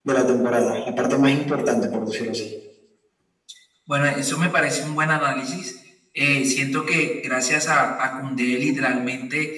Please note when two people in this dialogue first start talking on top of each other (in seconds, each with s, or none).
none